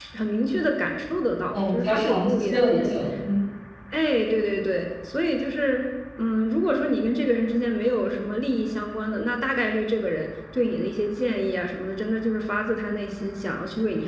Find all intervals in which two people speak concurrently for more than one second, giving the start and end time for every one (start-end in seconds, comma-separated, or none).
1.5-2.9